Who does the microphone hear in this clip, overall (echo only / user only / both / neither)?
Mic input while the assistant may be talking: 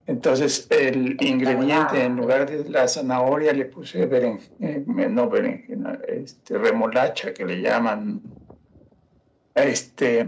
both